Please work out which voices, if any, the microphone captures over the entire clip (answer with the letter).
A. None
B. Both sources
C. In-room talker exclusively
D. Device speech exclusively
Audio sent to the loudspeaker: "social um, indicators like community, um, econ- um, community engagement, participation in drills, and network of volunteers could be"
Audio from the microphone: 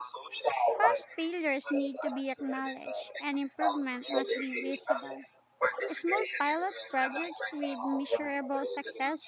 B